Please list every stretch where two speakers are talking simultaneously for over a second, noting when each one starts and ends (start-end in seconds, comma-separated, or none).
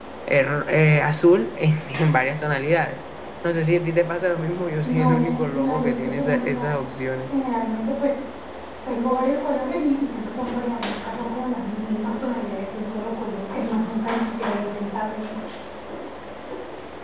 4.8-6.7